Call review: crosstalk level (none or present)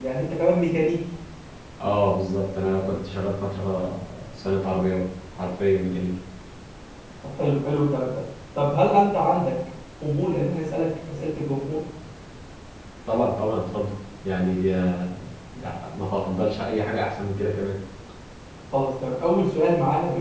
none